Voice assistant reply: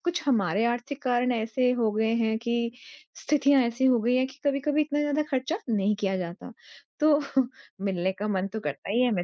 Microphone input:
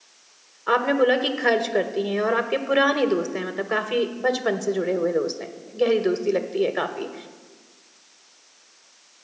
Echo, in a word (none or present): none